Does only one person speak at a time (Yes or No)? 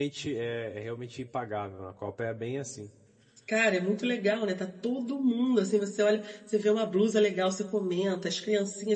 Yes